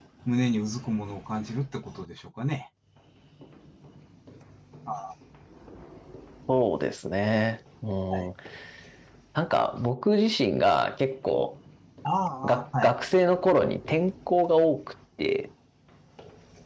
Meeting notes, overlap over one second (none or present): none